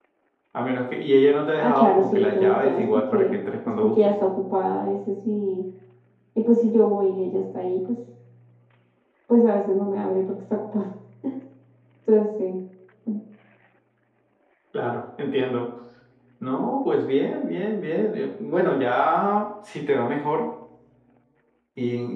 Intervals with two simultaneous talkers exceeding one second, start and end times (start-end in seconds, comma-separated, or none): 1.6-4.1